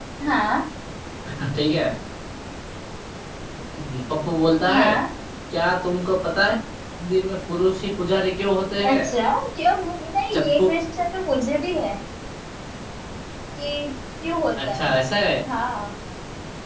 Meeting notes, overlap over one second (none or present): none